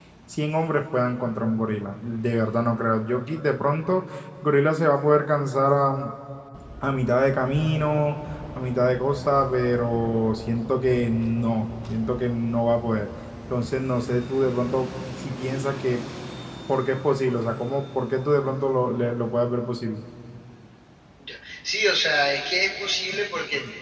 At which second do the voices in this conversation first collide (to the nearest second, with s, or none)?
none